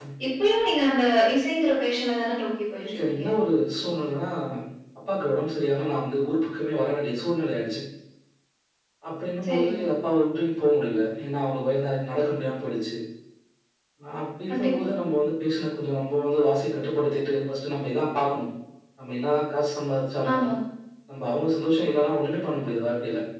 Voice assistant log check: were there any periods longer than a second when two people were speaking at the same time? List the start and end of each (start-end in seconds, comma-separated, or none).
none